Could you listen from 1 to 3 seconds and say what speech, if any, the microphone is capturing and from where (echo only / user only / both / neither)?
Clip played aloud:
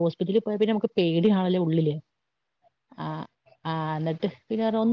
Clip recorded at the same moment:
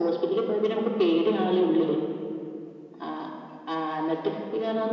echo only